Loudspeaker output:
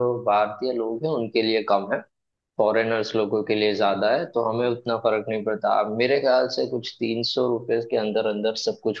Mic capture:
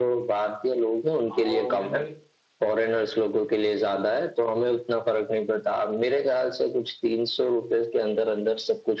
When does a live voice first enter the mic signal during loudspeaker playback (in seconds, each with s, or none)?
1.3 s